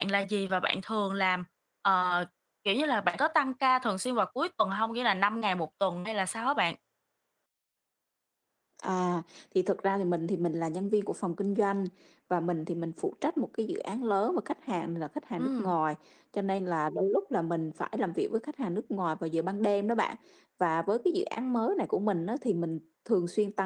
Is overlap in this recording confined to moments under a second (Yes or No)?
Yes